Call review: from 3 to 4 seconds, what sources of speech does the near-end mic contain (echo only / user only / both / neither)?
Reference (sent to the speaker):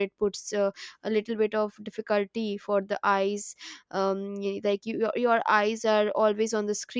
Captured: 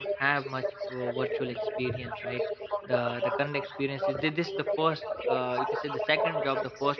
both